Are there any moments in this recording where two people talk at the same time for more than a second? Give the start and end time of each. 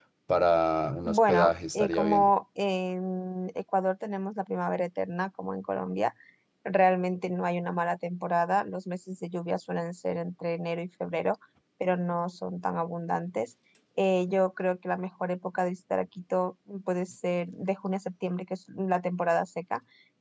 1.1-2.3

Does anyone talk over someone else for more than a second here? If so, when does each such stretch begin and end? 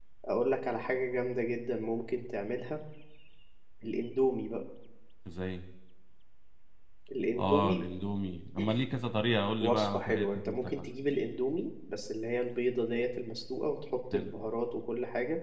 9.6-10.9

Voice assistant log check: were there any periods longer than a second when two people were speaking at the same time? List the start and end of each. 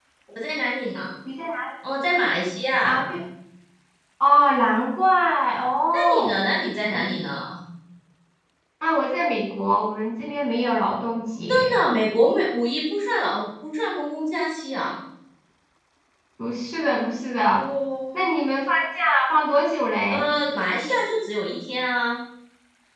none

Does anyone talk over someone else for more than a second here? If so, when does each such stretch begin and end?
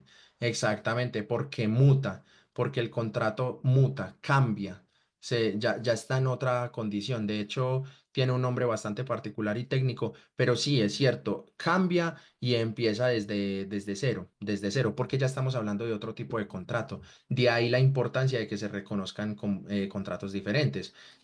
none

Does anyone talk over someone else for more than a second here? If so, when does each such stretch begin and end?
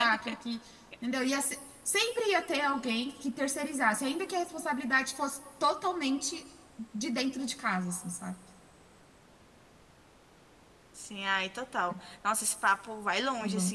none

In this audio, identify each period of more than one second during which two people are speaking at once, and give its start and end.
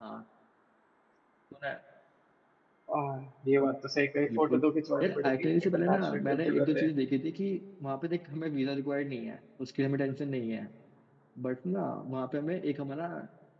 5.0-6.9

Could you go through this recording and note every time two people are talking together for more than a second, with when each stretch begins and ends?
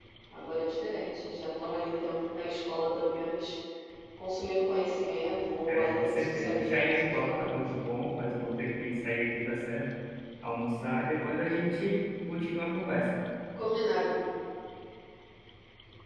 5.7-7.9

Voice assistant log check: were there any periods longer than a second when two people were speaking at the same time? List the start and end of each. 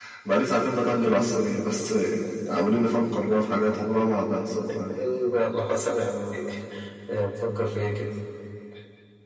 none

